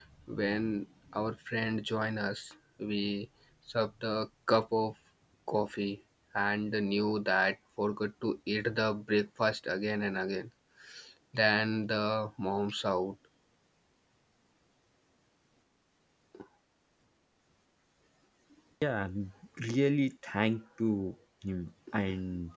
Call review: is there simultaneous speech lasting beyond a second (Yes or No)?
No